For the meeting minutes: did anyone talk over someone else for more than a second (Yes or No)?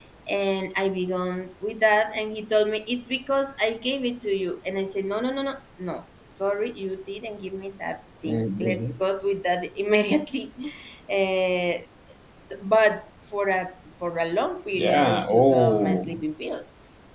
Yes